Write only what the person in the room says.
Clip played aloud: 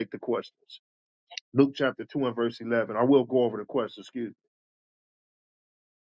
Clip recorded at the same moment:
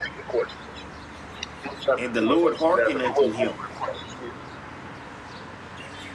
and the Lord hearkened unto him,

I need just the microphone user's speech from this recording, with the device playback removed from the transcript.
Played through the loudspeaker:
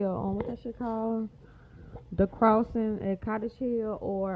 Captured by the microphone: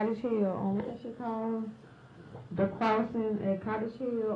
none

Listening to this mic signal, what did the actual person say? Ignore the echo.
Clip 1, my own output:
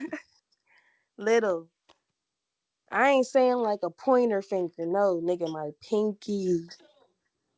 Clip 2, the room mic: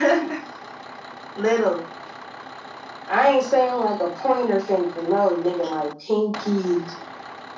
none

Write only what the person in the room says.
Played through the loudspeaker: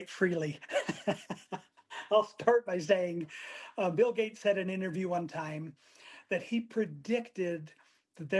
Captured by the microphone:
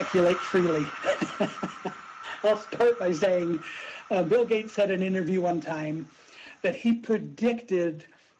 none

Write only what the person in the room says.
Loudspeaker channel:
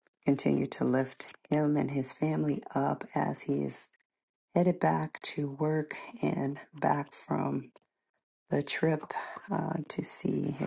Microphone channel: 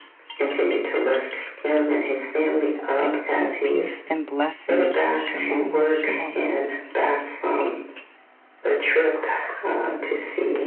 Thank you. Peace and blessings. Shalom. Shalom.

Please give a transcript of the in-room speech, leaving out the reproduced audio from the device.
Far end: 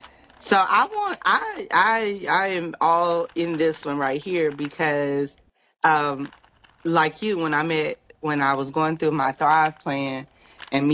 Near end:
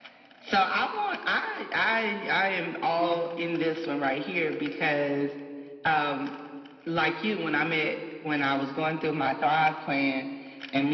Mm-hmm.

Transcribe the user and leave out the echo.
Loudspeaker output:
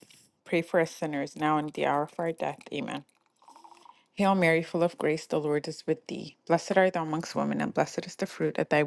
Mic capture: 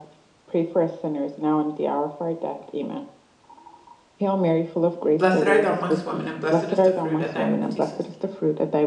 Blessed art thou amongst women, and blessed is the fruit of thy womb, Jesus.

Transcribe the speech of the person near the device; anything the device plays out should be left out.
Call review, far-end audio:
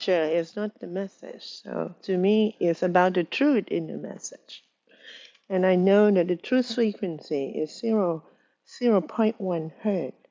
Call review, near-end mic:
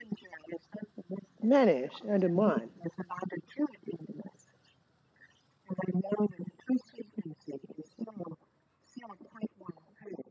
manage are the mod.

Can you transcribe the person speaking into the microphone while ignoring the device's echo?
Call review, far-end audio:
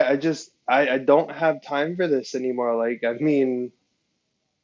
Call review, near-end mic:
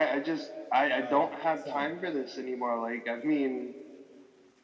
oh all right. Sorry.

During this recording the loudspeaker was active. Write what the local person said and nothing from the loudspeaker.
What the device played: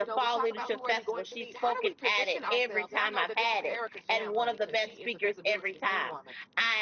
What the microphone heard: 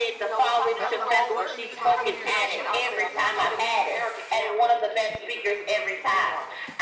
That was a whole word. you just going to come in here and drop the mic. Okay. Well, we love it.

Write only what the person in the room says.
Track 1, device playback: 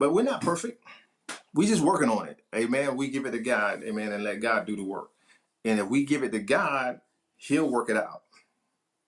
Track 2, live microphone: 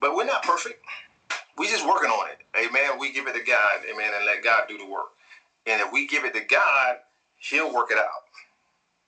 none

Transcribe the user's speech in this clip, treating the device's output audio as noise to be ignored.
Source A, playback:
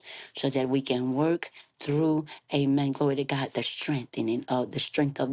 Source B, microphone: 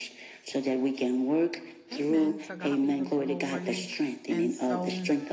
Amen. To God be the glory. And so

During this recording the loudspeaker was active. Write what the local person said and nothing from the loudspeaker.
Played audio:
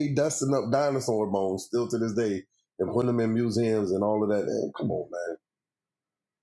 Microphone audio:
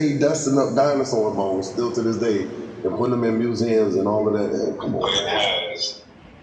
but it has

